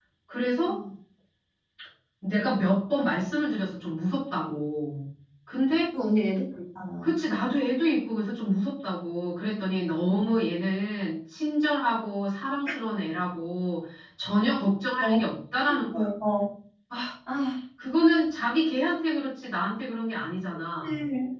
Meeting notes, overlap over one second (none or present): none